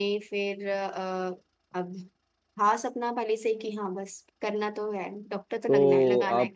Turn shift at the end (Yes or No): Yes